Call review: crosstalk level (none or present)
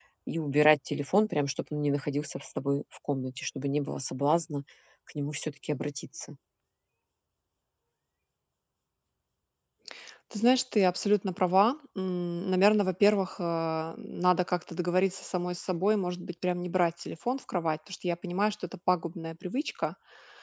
none